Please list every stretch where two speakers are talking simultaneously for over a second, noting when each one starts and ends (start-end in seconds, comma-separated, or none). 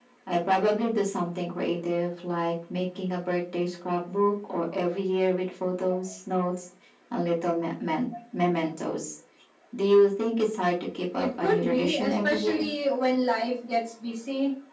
11.2-12.7